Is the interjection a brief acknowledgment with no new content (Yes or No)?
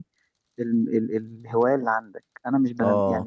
Yes